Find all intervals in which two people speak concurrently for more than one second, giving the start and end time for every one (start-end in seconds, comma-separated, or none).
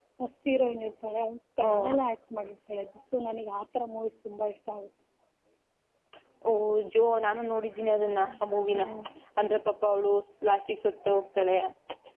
none